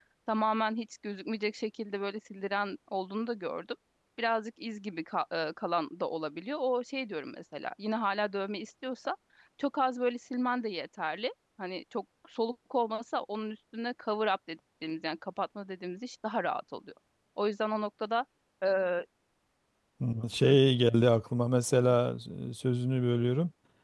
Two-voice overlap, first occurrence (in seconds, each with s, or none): none